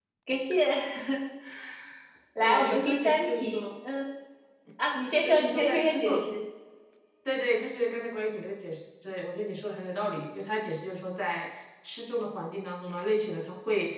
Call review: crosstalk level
present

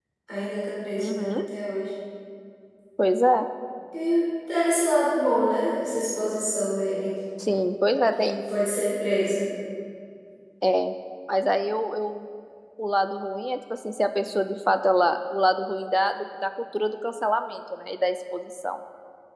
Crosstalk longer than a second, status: none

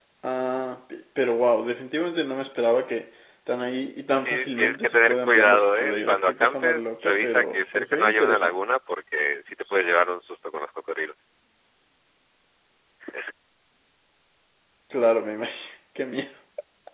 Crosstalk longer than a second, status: present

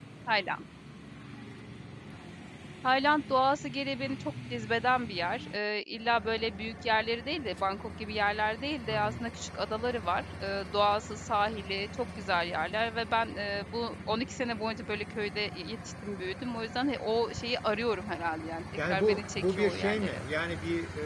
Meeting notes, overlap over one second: present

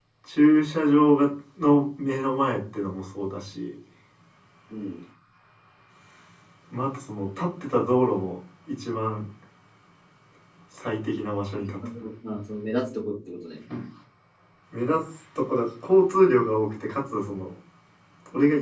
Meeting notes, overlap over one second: none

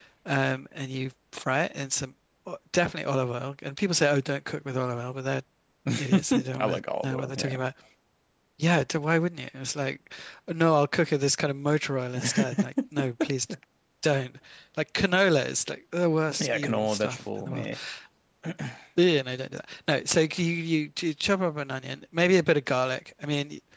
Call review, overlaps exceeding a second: present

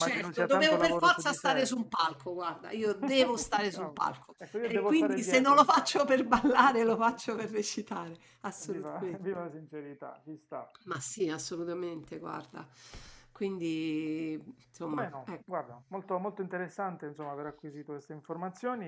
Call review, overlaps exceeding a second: present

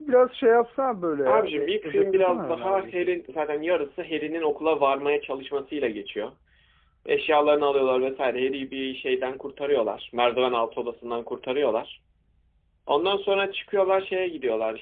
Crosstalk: present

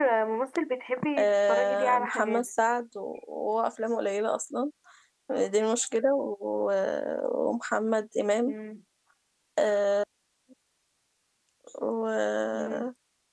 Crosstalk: present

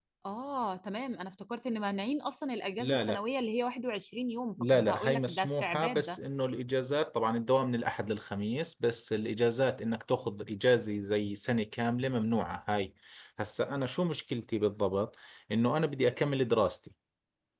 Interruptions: present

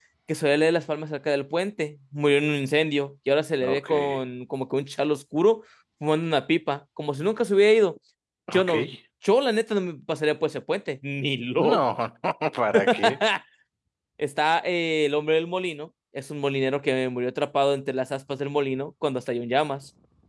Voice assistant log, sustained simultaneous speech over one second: none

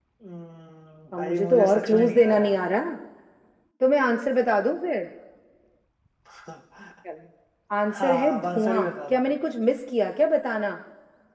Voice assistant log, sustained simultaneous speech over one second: present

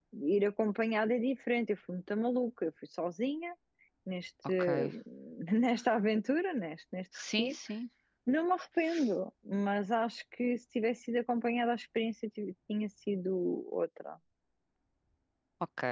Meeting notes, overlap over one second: none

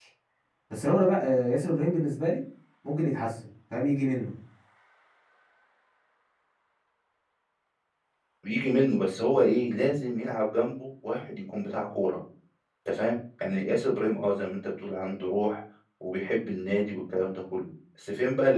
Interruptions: none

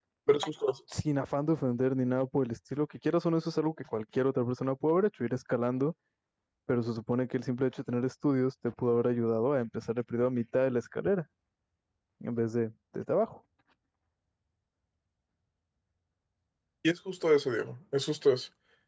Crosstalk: none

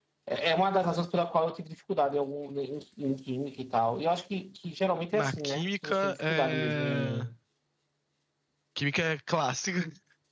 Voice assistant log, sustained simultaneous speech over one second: present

